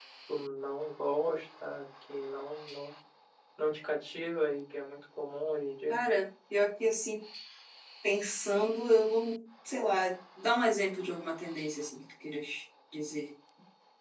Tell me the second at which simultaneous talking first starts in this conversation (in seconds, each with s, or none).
none